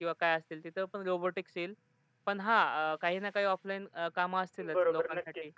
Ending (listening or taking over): taking over